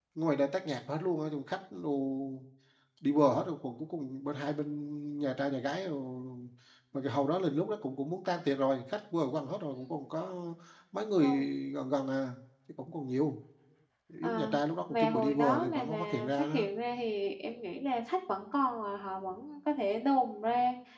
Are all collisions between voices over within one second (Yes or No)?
No